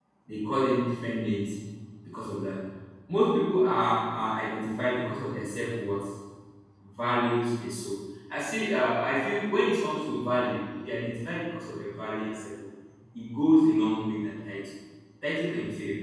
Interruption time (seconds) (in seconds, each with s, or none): none